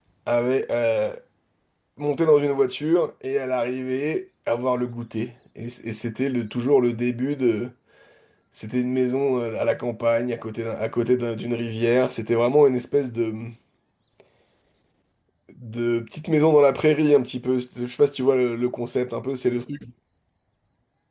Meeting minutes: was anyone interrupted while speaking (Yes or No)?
No